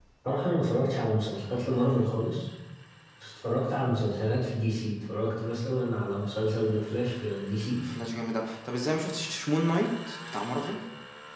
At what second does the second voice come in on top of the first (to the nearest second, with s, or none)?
none